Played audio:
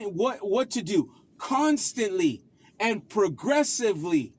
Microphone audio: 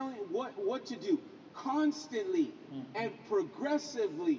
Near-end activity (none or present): present